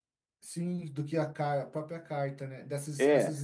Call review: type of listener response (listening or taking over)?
taking over